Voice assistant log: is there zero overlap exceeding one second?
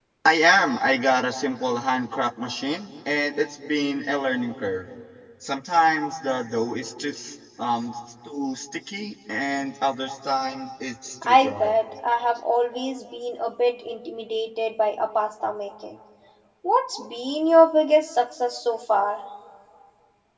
Yes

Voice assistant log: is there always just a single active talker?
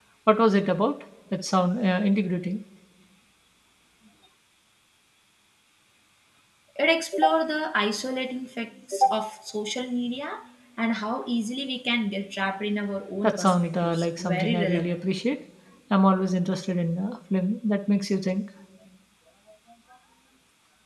No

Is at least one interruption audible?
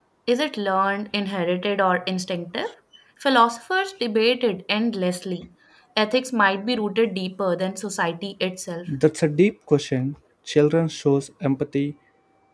No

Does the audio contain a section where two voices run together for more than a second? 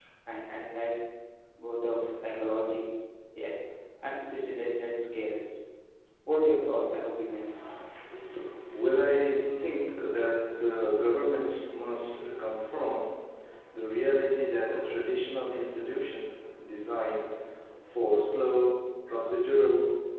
No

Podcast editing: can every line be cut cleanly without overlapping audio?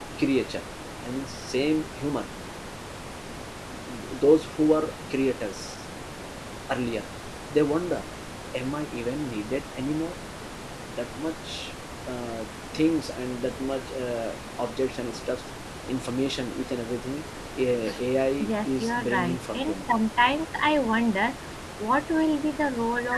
No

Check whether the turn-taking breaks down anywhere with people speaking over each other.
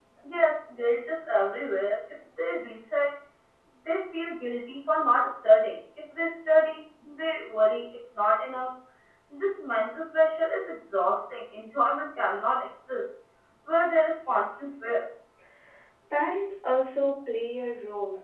No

